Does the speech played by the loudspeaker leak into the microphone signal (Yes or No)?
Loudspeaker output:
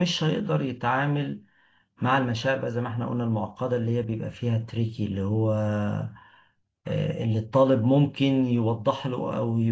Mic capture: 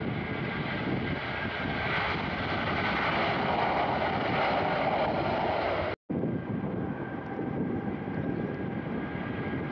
No